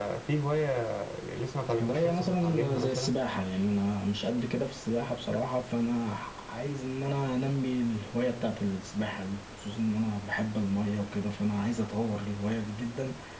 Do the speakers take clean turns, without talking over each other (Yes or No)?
No